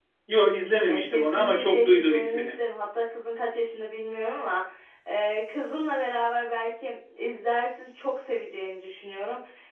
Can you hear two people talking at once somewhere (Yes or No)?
Yes